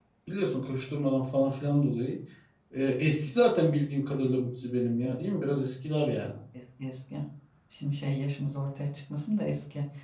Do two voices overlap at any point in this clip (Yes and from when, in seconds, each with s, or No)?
No